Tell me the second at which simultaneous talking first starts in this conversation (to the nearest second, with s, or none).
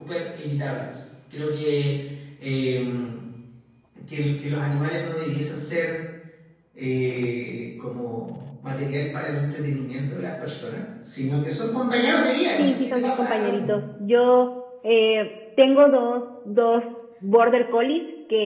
13 s